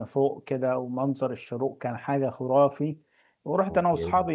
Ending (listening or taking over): listening